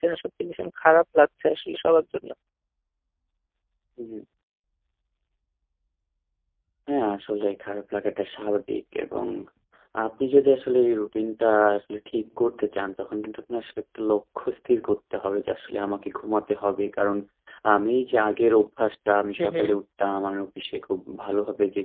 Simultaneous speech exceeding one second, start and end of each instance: none

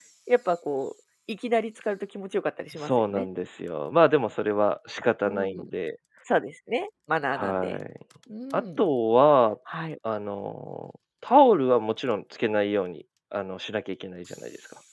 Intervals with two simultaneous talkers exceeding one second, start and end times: none

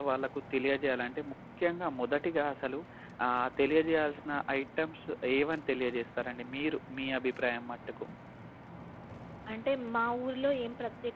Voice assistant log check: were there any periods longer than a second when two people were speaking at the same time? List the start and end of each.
none

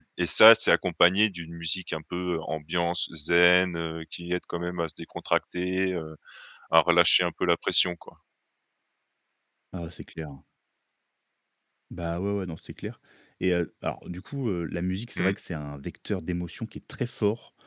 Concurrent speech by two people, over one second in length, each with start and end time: none

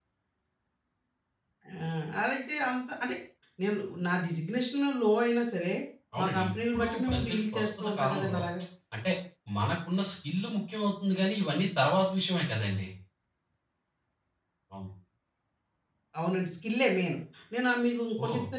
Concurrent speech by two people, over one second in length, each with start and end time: 6.2-8.4

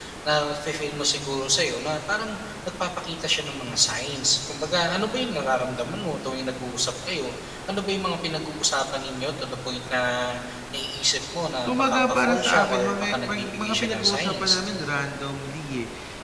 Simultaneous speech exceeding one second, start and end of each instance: 11.7-14.6

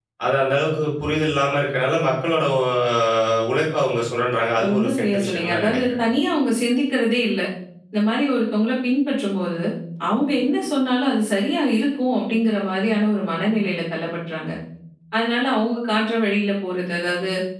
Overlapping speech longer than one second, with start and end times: 4.6-5.9

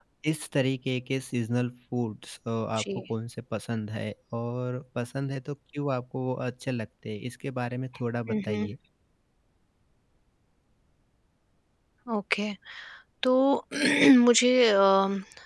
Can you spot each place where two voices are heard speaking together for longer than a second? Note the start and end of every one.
none

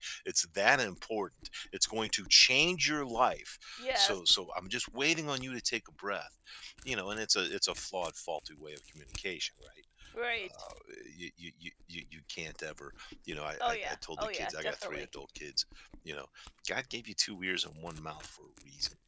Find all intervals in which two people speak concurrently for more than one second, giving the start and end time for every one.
13.6-15.1

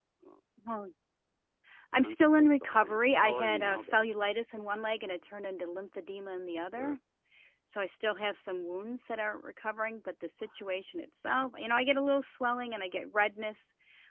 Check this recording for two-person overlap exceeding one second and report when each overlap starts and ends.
2.0-4.0

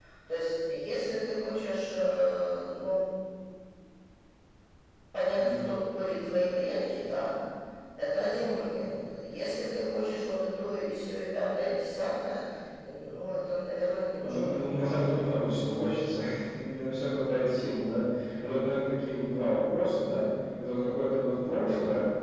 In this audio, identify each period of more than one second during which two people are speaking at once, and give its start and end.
14.2-15.6

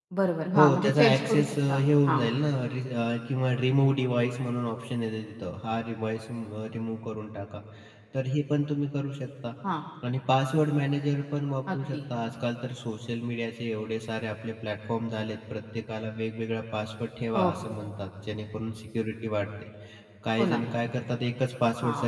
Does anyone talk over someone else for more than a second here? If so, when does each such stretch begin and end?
0.6-2.3

